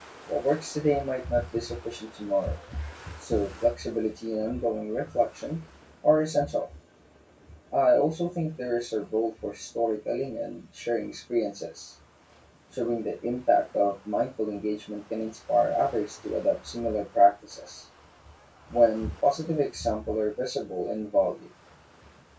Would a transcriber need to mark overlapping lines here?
No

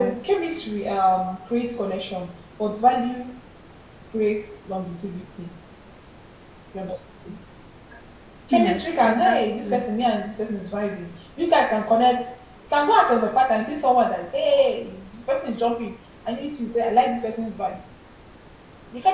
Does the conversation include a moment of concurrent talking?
Yes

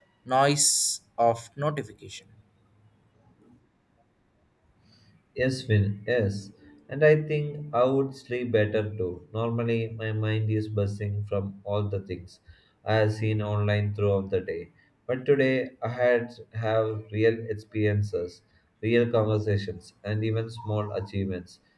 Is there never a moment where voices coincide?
Yes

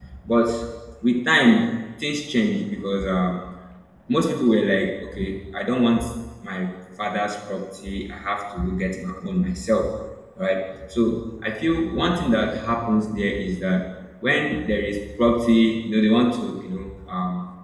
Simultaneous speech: No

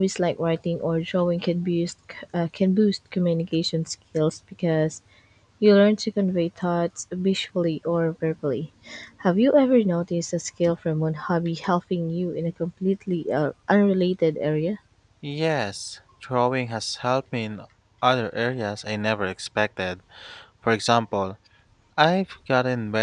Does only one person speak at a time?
Yes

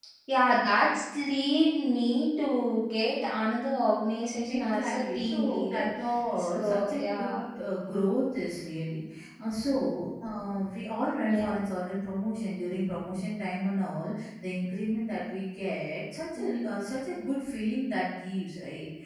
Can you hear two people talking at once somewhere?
Yes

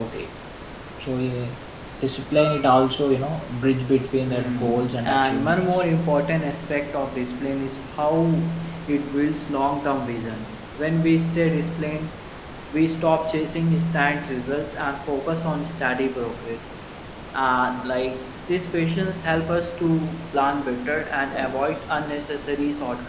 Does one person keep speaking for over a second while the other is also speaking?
Yes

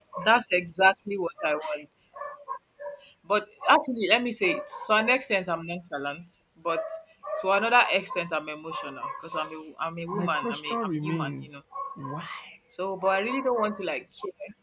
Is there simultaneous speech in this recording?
Yes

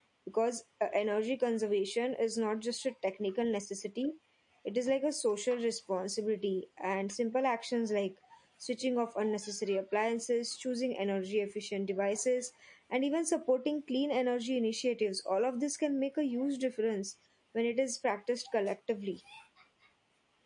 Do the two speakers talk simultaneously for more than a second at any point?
No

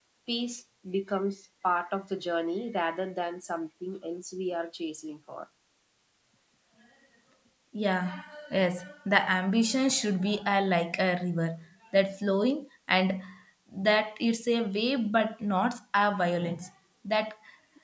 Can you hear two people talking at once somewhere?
No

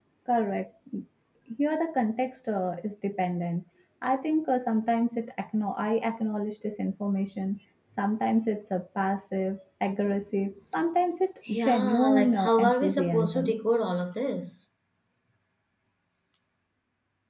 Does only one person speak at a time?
No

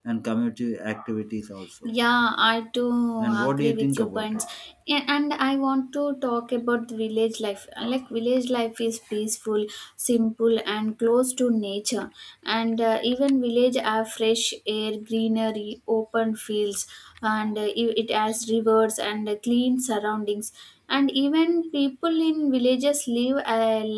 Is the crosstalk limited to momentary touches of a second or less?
No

